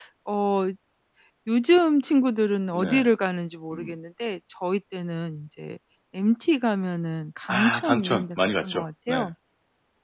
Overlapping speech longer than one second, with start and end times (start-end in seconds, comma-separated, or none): 7.5-9.3